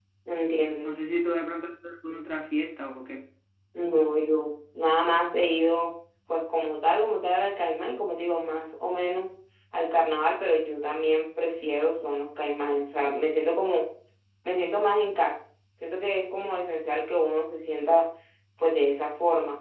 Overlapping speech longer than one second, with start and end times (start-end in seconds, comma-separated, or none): none